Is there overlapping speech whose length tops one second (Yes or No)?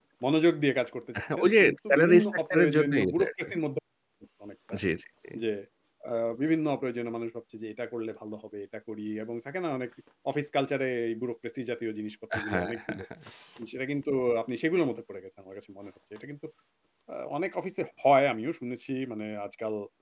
Yes